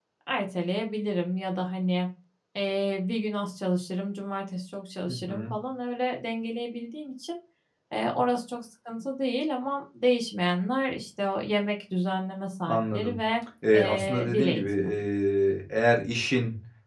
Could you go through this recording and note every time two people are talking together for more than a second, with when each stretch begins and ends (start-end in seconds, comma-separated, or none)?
13.7-14.9